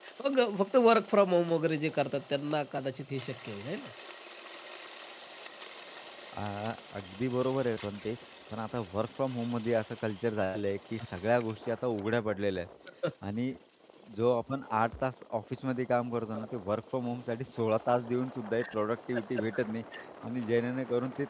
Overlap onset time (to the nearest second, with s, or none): none